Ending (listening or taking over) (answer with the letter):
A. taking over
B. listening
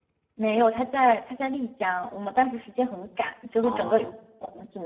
B